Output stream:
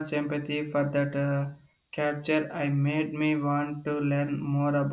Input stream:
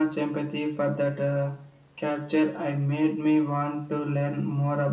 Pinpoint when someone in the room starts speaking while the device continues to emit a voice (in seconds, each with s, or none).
none